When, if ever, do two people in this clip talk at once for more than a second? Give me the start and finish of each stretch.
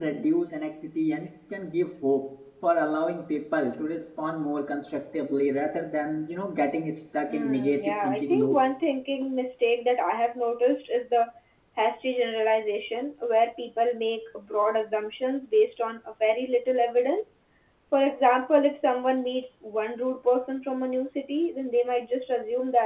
7.3-8.6

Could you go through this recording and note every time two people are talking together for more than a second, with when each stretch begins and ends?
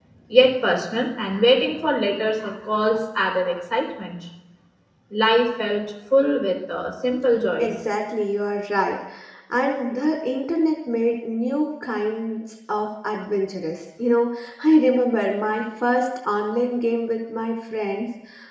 none

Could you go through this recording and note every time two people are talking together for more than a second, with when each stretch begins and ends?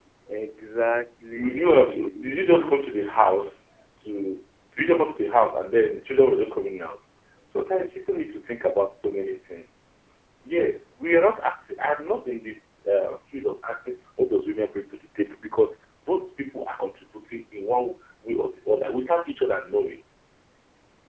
1.3-2.8

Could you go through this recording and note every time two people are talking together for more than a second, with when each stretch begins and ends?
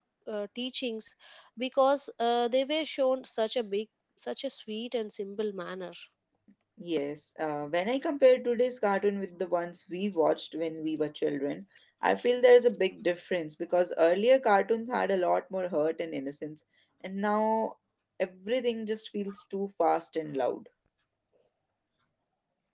none

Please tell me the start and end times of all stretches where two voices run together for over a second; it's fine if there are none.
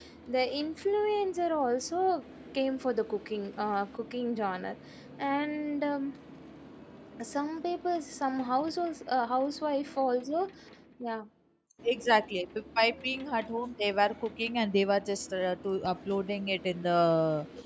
none

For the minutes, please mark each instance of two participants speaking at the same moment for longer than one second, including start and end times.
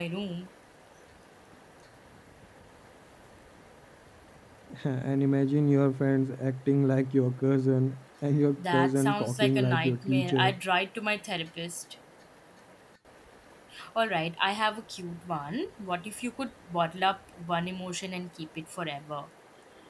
8.6-10.6

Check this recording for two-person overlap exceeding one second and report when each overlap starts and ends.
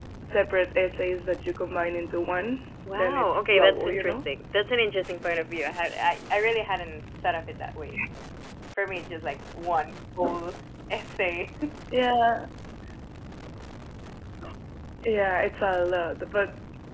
3.0-4.2

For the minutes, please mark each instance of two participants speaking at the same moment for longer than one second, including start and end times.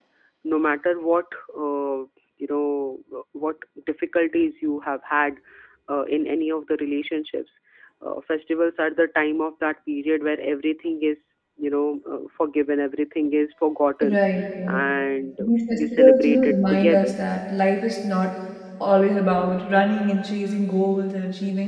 15.4-17.1

